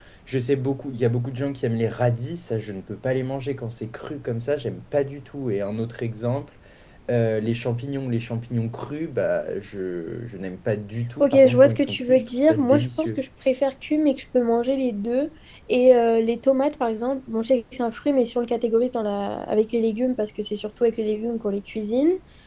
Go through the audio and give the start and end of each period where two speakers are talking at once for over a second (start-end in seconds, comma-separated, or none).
11.2-13.2